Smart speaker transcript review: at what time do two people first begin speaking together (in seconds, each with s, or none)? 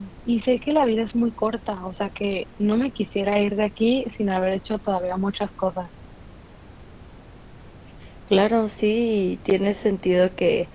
none